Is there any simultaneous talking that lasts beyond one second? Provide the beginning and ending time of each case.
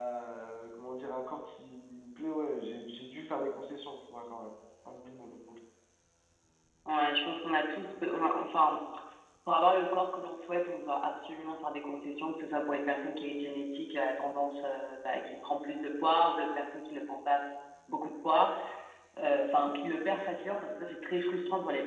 none

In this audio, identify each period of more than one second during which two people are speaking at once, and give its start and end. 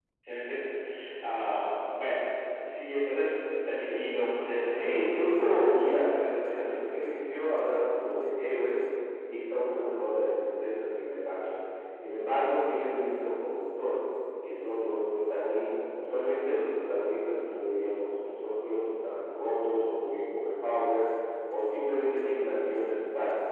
4.7-6.7

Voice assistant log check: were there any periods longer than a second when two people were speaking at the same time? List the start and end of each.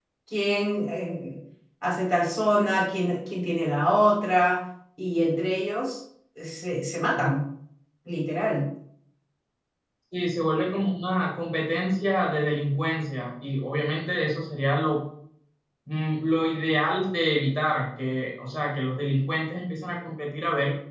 none

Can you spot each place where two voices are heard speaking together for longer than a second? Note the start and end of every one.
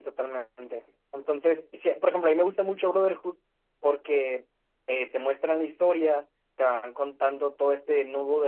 none

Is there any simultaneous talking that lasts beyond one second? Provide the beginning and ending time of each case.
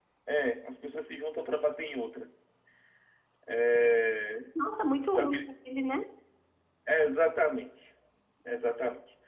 none

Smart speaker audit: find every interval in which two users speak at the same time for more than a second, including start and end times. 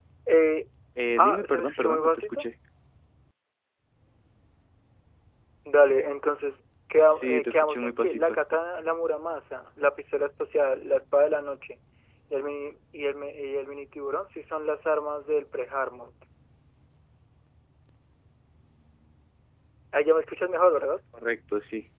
1.2-2.4, 7.1-8.4

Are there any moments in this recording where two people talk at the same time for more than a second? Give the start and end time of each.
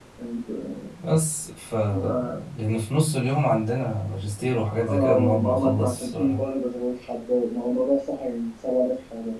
4.8-6.4

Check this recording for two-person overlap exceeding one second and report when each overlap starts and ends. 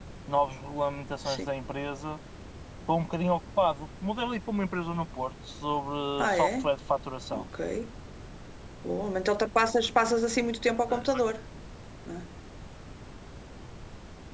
none

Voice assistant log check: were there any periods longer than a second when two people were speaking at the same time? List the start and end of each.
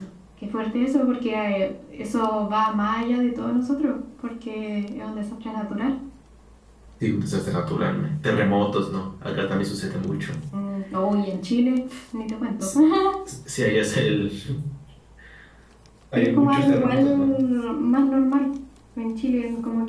16.1-17.4

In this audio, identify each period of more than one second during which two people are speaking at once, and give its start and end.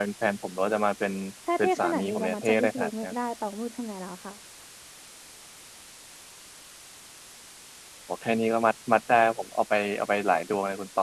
1.6-3.1

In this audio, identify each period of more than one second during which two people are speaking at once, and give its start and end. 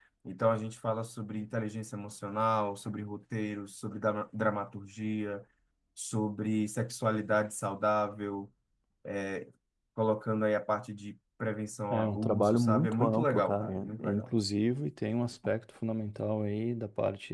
11.9-14.3

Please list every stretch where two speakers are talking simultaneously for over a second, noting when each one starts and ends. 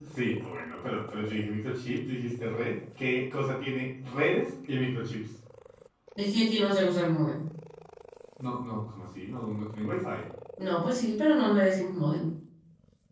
none

